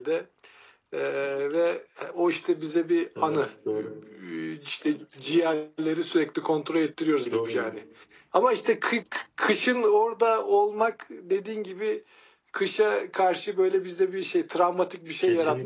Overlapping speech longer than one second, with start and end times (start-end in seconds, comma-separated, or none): none